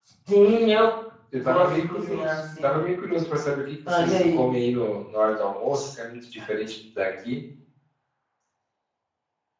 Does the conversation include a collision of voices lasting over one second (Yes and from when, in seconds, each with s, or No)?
Yes, from 1.4 s